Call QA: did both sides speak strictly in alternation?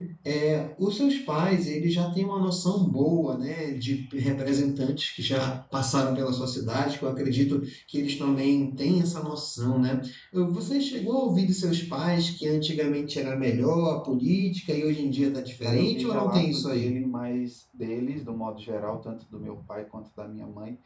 No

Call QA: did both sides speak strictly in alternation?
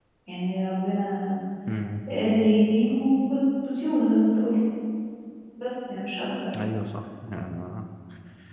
Yes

